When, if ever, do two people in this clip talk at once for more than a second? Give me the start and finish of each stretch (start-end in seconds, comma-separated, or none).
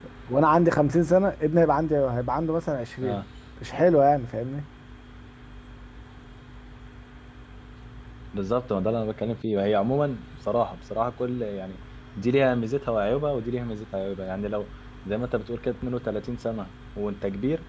none